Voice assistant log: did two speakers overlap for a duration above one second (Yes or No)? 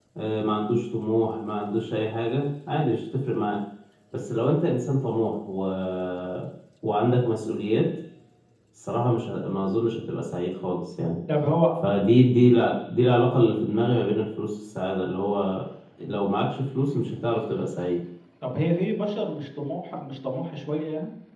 No